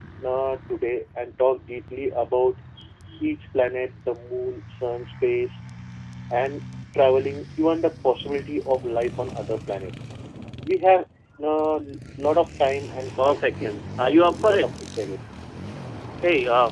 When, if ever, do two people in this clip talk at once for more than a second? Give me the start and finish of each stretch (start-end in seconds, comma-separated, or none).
13.2-14.7